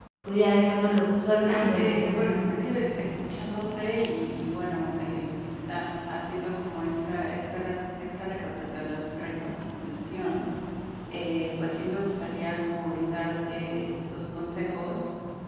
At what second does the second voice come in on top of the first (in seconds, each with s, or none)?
1.4 s